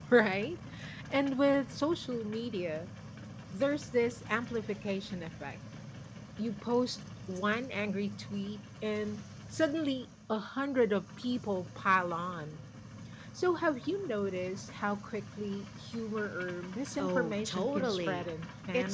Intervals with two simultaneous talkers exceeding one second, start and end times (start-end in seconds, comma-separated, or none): 17.0-18.3